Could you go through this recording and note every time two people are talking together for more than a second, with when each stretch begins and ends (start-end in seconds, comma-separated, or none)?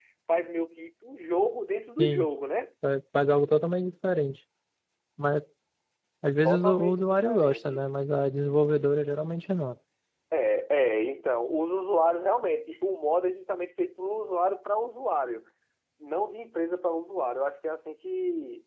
6.4-7.8